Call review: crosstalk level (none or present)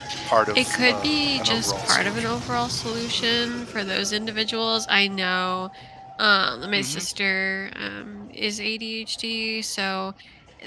present